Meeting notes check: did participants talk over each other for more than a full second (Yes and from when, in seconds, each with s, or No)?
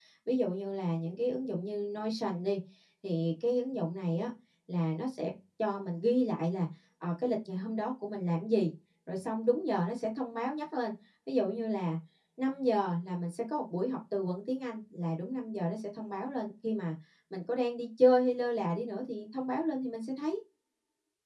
No